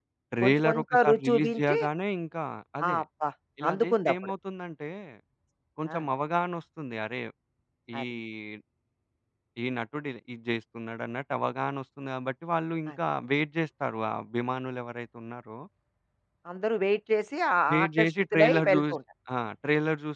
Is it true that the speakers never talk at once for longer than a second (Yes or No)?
No